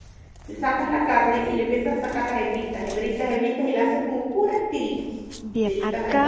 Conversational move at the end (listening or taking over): taking over